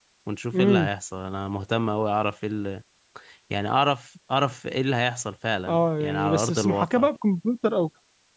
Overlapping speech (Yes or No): Yes